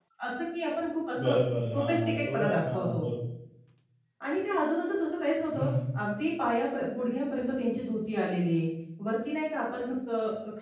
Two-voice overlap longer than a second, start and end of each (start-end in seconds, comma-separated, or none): 1.7-3.0